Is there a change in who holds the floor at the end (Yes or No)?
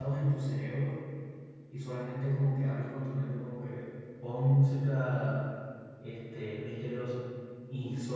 No